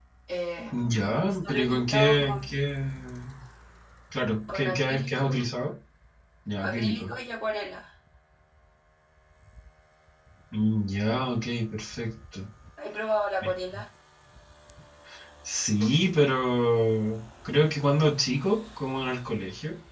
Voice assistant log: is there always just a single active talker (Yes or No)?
No